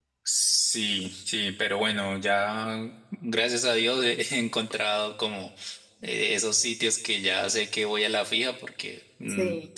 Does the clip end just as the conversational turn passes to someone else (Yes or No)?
No